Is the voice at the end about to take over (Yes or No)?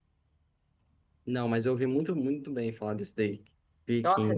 Yes